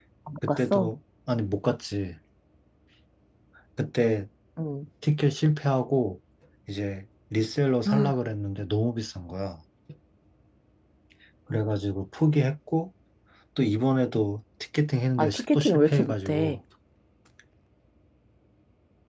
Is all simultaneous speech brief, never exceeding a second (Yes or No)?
No